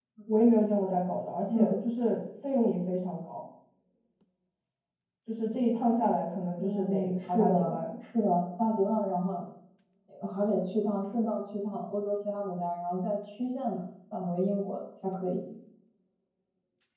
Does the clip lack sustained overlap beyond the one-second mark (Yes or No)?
No